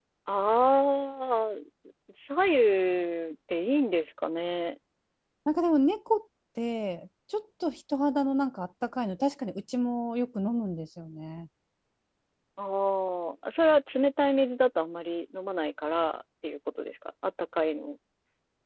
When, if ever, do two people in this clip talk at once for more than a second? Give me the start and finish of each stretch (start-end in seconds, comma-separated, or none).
none